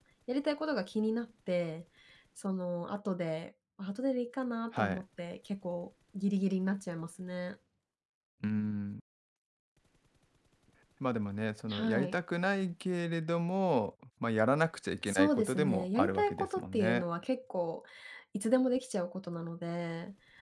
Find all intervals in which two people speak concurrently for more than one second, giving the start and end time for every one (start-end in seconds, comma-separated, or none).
15.1-17.0